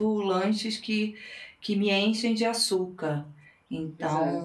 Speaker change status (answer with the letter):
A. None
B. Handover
A